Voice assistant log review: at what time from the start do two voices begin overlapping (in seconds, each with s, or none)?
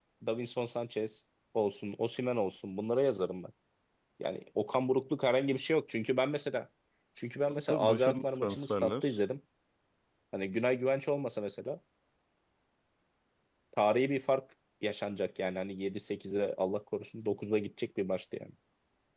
7.5 s